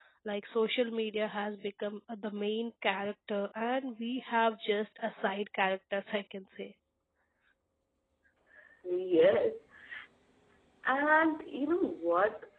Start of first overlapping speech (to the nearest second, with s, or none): none